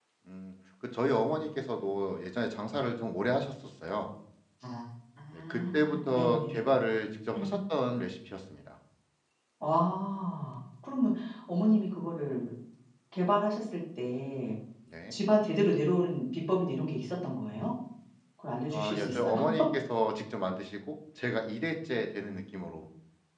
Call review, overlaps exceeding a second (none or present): present